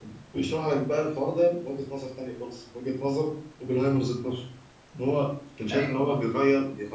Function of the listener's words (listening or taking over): listening